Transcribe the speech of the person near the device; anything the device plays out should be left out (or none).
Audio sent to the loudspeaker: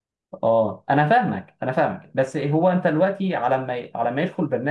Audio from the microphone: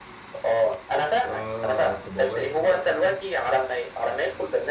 اه طب والله تصدق فكرة